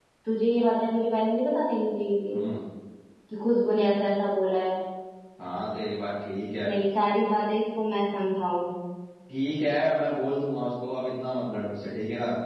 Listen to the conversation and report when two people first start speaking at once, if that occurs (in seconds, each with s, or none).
none